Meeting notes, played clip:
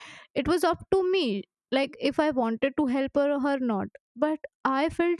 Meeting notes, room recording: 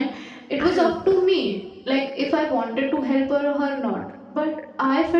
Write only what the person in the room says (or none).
I don't know.